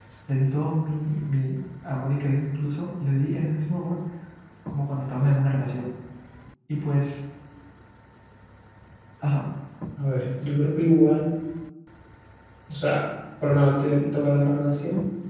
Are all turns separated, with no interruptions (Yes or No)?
Yes